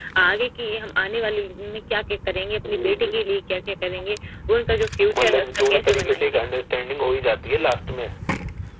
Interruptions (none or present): present